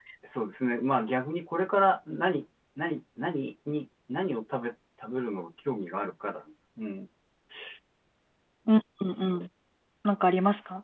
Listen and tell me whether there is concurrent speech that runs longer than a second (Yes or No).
No